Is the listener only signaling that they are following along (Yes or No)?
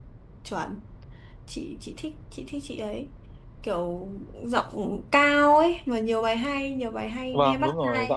No